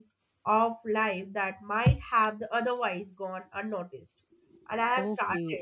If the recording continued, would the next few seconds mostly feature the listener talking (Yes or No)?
Yes